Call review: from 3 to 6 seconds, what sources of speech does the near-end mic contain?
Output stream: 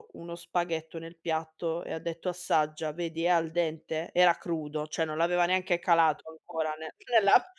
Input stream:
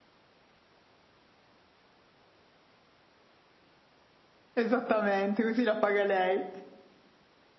user only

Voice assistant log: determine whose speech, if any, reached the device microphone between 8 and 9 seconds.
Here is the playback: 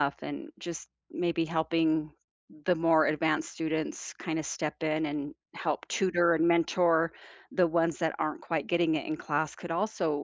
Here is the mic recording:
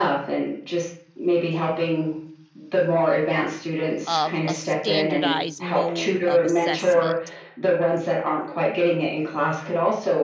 echo only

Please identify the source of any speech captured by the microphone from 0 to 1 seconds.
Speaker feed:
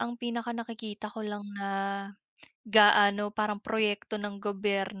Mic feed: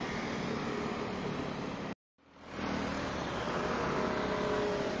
neither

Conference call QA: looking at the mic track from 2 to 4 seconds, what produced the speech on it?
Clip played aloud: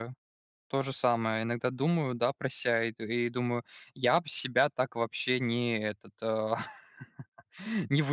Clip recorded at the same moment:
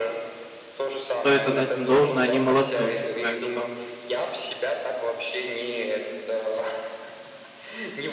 both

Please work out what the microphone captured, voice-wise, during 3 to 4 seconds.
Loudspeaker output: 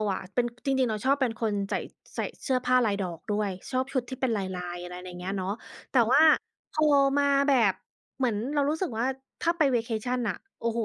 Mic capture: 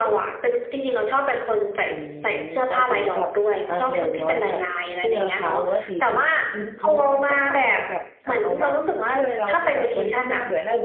both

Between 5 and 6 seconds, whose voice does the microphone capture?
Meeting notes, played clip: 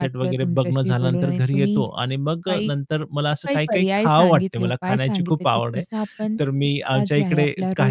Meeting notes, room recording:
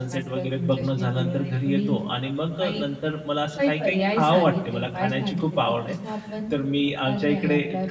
echo only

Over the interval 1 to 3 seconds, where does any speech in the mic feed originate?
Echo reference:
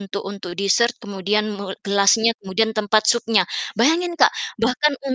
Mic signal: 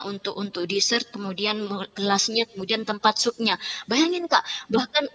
echo only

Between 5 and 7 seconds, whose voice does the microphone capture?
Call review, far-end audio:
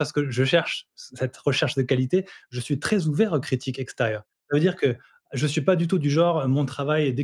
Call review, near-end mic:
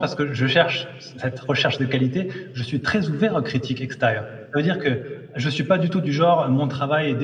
echo only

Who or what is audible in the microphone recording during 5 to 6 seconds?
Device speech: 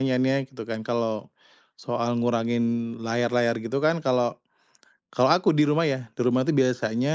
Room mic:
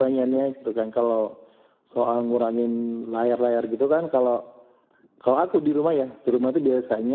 echo only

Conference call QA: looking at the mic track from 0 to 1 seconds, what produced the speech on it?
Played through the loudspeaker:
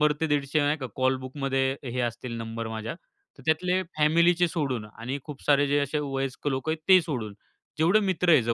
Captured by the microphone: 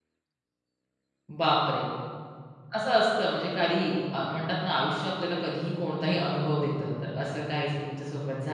neither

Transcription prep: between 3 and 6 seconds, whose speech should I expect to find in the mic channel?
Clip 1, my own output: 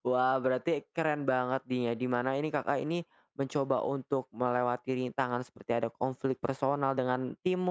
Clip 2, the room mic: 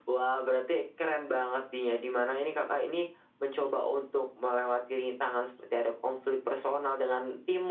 echo only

